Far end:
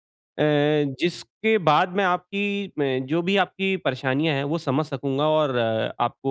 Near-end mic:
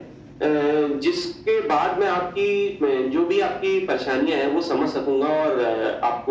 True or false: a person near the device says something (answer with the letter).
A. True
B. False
B